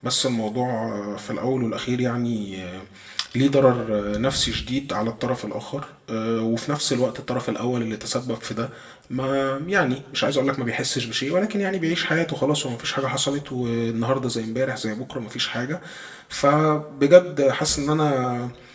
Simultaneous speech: No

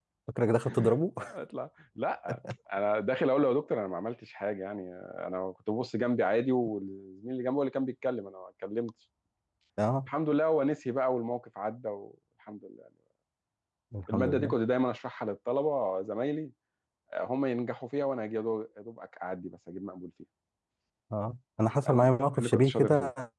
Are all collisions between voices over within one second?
No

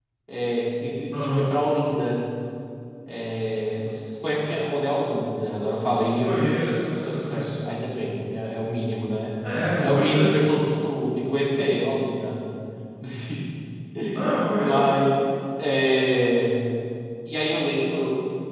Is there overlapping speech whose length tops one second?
Yes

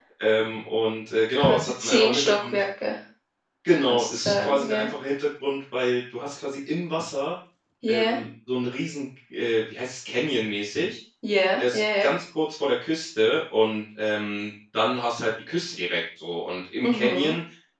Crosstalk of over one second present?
Yes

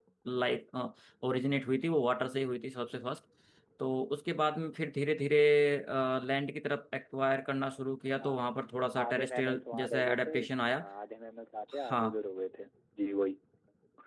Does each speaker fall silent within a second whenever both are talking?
No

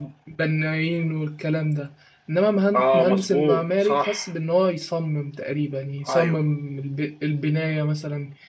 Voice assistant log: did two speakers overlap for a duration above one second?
Yes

